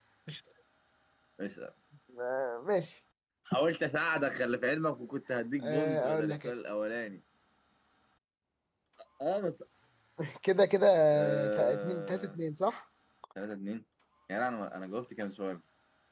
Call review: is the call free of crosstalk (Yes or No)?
No